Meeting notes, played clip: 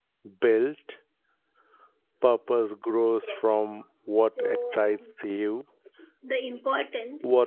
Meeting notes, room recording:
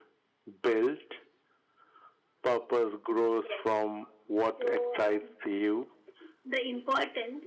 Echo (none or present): present